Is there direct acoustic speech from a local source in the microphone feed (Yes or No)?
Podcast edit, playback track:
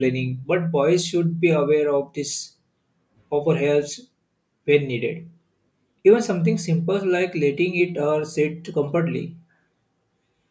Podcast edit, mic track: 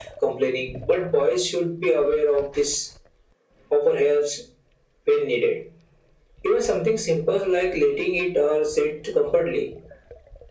No